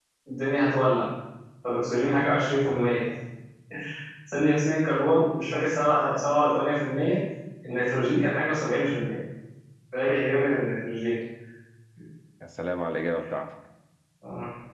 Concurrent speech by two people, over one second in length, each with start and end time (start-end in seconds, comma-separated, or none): none